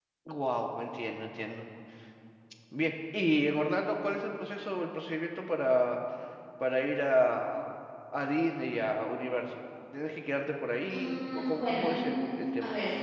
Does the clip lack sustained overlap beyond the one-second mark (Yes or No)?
No